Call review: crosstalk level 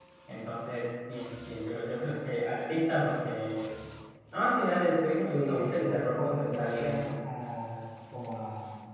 present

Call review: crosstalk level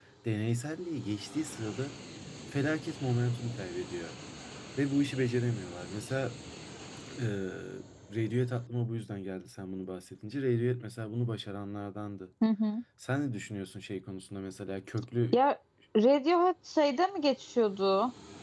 none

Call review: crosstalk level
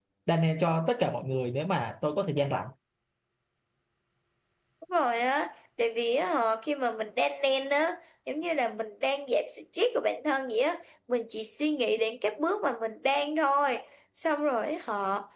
none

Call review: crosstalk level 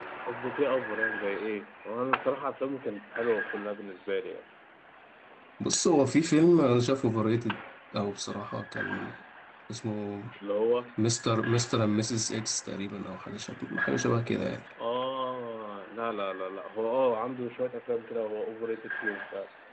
none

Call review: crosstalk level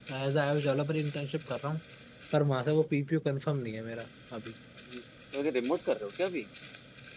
none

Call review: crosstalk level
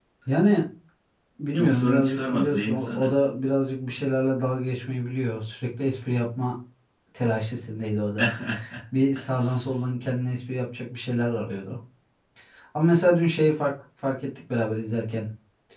present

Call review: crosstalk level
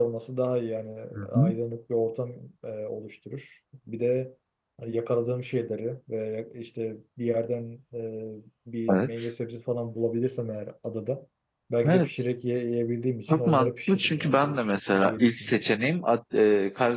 present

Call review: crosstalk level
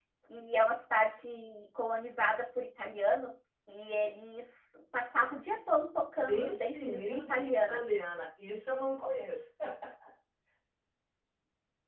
present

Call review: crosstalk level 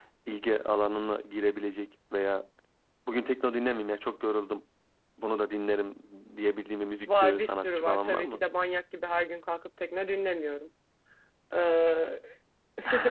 present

